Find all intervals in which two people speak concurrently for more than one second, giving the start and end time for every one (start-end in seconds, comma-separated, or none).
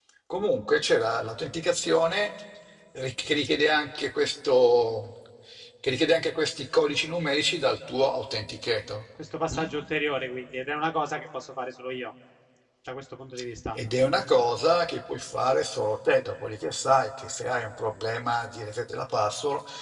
none